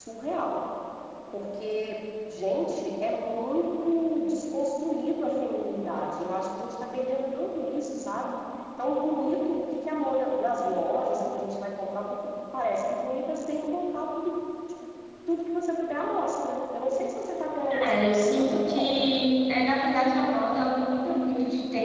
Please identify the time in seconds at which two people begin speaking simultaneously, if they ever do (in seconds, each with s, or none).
17.7 s